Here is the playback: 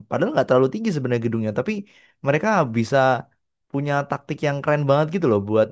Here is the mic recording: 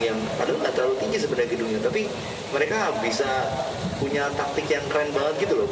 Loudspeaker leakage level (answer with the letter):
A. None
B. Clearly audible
B